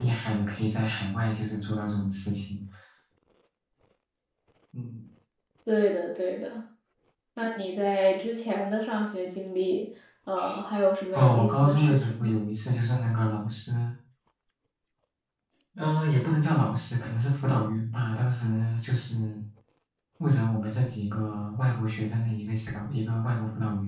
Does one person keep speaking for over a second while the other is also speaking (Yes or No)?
Yes